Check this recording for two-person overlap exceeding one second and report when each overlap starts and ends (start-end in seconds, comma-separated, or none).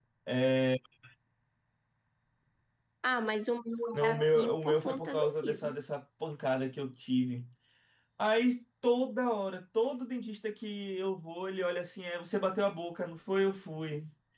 3.9-5.8